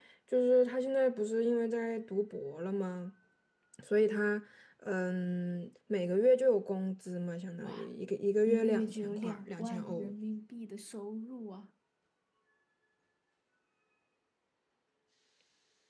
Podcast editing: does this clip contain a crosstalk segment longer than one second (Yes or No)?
Yes